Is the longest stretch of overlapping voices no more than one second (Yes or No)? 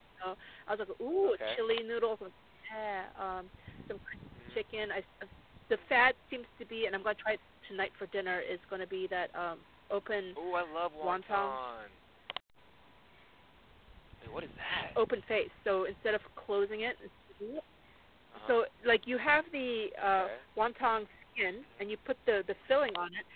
Yes